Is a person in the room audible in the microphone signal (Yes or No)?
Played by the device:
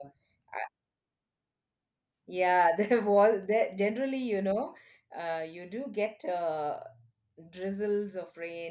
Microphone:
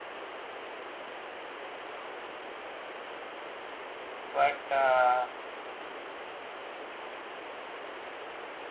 Yes